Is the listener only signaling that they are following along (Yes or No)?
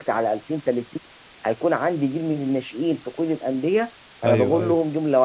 Yes